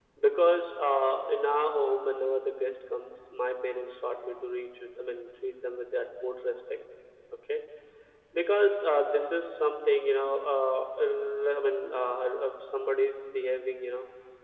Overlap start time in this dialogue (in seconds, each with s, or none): none